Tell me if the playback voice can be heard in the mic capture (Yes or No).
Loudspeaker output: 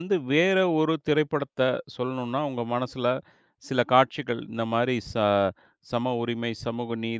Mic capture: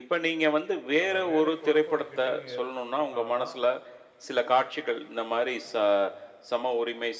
Yes